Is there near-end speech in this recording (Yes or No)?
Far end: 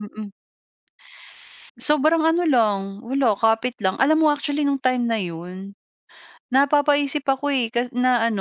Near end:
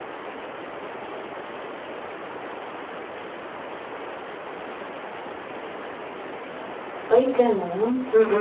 Yes